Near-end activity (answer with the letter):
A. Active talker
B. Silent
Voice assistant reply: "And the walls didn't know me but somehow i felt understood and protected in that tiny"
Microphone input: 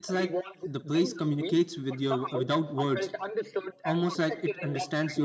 A